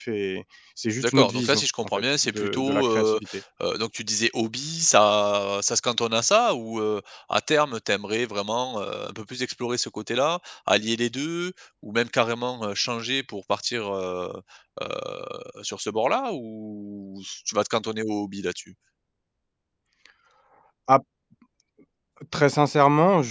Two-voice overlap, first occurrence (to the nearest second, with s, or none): 1 s